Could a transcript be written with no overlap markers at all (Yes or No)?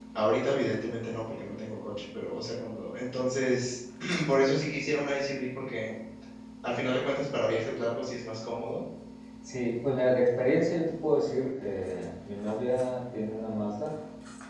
Yes